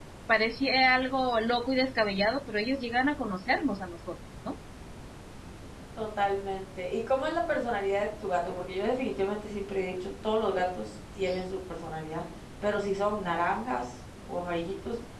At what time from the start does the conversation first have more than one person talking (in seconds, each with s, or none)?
none